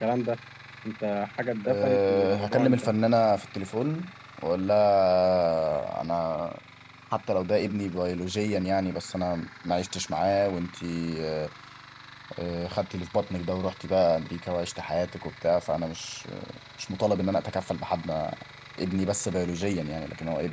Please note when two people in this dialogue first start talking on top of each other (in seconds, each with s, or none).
1.7 s